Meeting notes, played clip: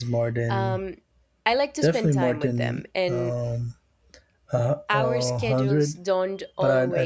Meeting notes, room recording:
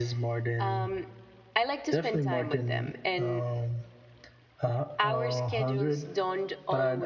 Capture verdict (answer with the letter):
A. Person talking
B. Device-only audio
B